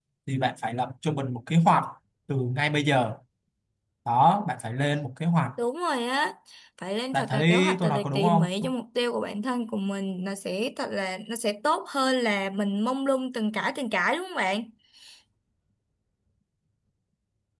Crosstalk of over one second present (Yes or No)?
Yes